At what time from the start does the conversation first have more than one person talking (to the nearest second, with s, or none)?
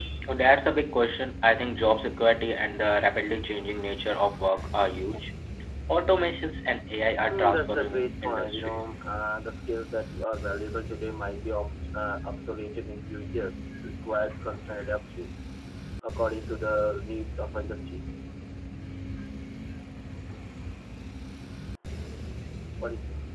7 s